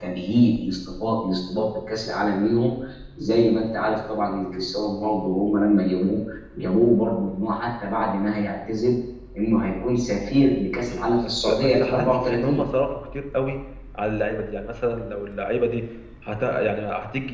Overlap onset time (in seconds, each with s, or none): 10.9 s